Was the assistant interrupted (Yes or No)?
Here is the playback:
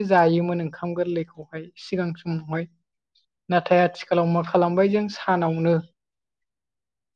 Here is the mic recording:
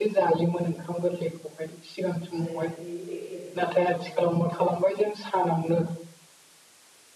Yes